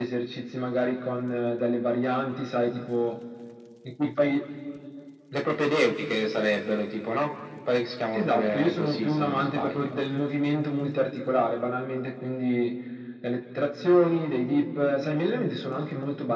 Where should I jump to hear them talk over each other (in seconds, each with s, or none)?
8.1 s